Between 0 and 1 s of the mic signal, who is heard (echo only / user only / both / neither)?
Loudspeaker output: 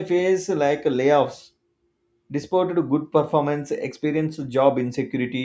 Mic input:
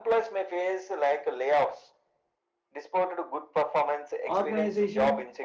echo only